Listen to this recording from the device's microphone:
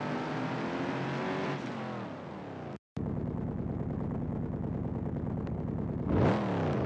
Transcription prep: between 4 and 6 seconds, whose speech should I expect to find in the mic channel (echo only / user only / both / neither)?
neither